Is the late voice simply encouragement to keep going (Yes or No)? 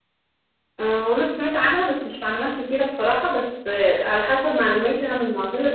No